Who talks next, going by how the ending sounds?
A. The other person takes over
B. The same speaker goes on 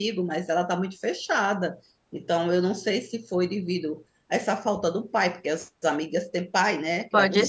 A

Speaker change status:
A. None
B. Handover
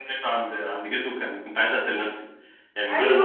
B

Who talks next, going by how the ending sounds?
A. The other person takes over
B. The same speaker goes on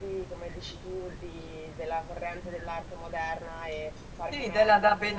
A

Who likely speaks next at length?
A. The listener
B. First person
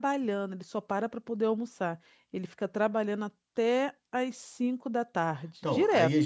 A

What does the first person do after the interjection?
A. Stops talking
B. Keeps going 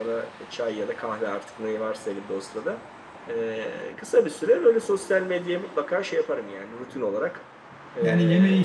A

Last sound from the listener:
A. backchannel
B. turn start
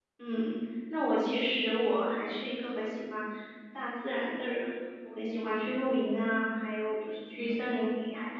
A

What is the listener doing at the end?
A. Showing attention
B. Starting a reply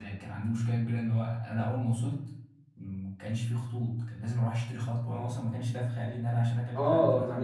B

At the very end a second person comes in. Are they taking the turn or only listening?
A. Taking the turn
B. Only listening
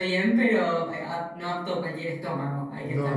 A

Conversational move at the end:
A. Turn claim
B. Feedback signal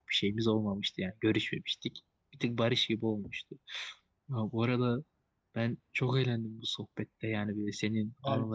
B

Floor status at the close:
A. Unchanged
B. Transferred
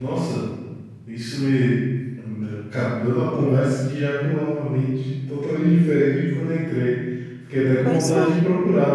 A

